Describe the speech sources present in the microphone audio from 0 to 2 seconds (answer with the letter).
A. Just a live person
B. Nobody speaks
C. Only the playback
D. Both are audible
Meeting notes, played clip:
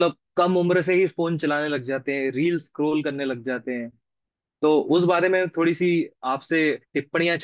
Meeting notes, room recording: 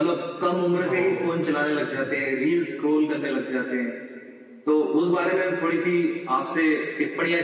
D